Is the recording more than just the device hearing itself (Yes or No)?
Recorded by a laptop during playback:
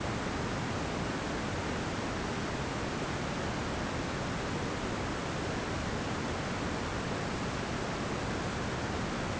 No